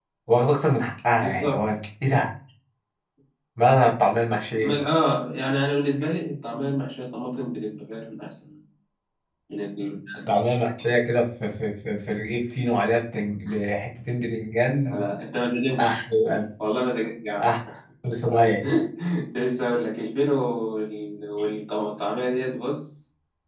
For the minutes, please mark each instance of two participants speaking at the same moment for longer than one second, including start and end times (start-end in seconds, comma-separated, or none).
none